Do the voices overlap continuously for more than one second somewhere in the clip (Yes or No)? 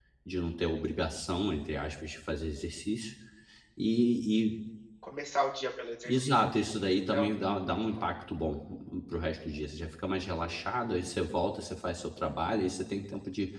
Yes